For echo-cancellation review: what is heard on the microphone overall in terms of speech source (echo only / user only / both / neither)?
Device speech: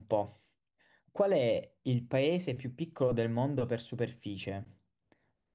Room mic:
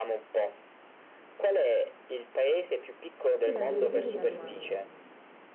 both